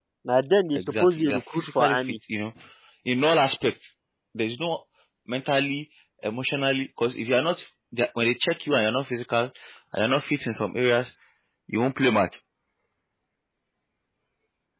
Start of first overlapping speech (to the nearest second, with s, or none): 1 s